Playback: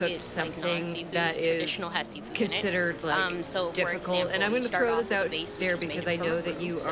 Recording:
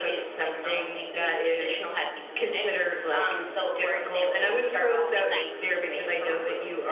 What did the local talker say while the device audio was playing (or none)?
exactly